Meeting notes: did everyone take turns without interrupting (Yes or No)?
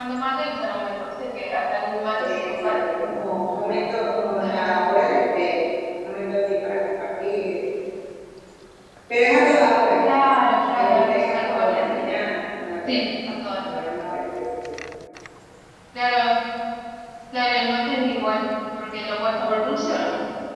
No